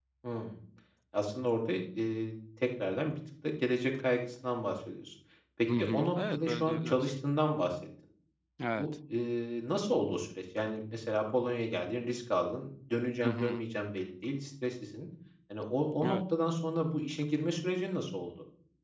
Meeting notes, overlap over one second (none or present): present